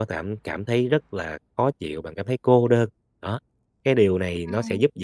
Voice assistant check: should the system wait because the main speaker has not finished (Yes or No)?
Yes